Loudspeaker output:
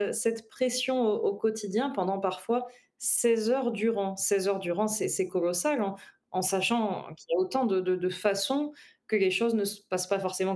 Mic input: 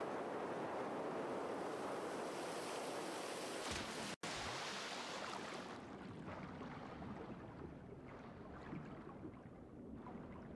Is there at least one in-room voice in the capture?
No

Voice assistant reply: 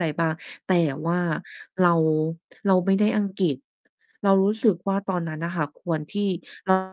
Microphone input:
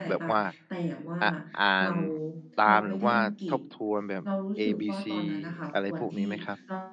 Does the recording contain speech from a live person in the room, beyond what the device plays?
Yes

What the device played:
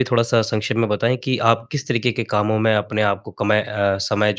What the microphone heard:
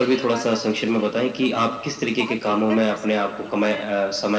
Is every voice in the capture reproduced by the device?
No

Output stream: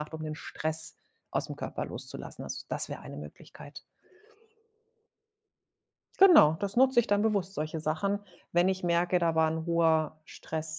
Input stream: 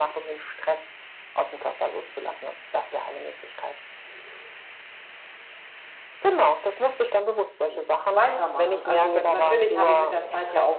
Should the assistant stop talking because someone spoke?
Yes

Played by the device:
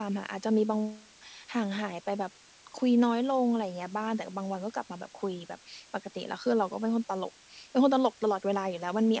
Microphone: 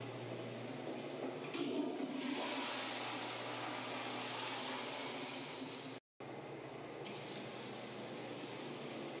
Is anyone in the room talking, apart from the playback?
No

